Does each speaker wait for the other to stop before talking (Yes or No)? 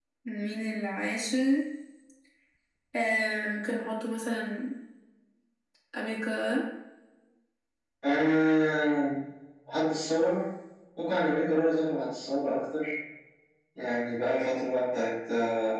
Yes